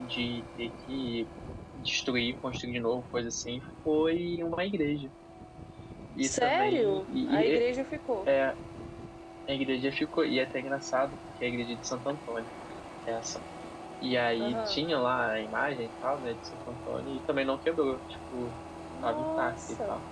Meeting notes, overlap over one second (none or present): present